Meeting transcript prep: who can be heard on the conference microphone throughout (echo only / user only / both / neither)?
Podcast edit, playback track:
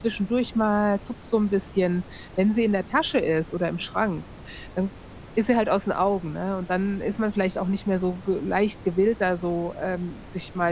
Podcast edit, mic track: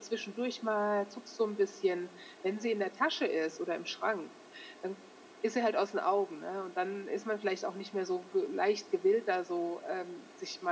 echo only